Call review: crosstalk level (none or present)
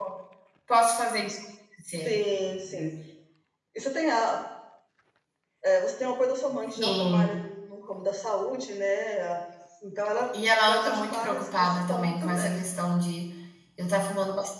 present